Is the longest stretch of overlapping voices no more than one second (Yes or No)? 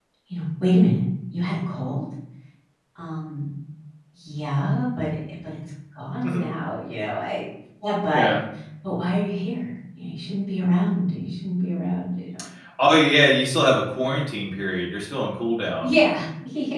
Yes